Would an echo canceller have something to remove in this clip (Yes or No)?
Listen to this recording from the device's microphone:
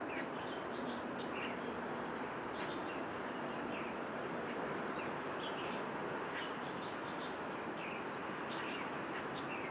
No